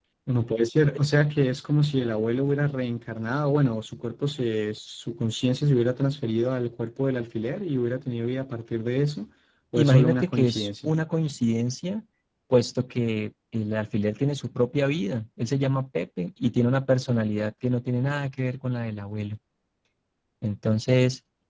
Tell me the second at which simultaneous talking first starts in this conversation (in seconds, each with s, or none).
9.8 s